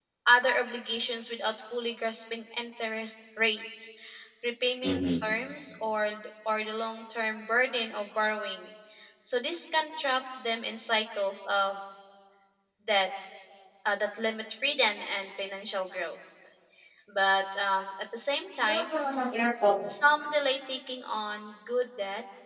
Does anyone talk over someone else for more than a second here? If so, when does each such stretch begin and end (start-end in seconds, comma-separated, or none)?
none